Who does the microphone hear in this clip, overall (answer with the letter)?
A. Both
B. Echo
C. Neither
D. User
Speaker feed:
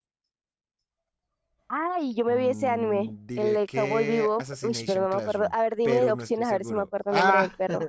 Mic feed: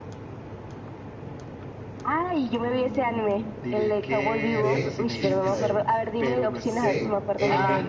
A